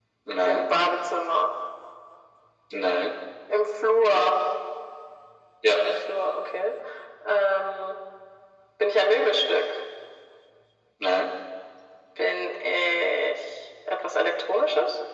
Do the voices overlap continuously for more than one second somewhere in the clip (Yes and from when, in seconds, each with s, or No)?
No